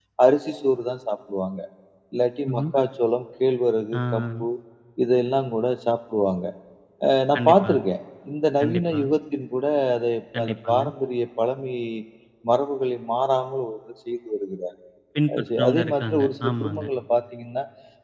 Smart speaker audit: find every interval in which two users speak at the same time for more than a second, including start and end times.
15.4-16.9

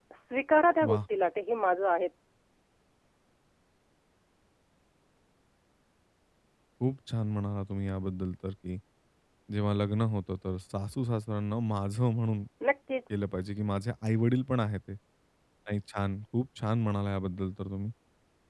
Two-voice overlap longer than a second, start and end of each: none

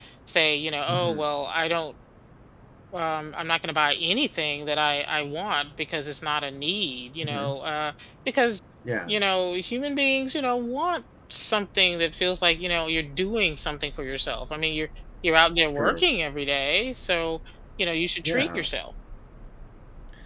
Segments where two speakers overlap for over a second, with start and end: none

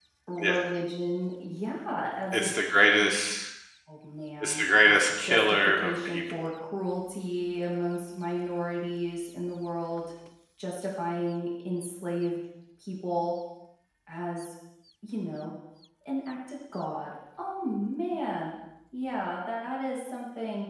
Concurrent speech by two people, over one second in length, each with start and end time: 4.4-6.5

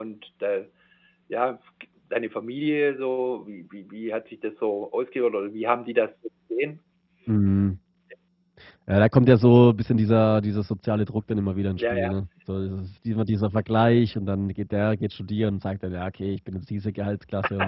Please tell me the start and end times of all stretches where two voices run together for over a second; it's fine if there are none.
none

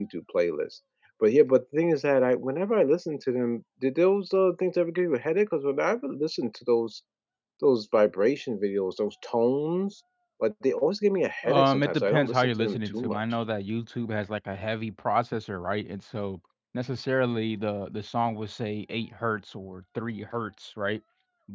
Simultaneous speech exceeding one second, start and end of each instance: 11.4-13.2

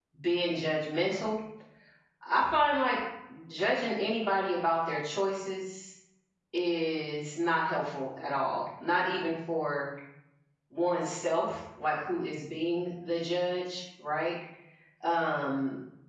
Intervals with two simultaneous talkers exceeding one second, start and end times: none

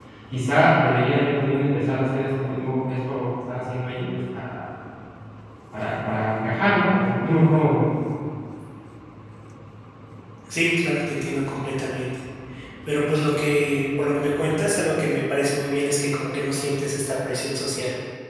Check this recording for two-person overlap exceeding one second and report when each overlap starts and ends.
none

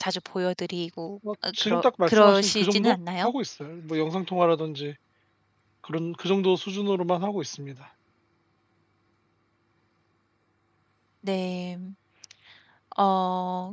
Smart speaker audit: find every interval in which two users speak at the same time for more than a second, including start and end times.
1.5-3.3

